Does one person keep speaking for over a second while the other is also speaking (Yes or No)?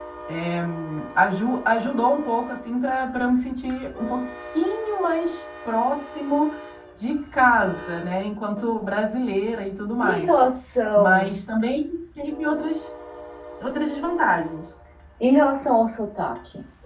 No